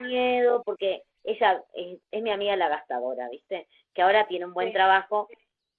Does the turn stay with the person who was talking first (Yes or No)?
Yes